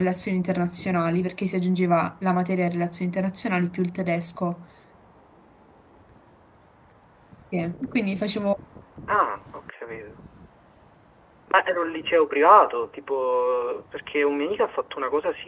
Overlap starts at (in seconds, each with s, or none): none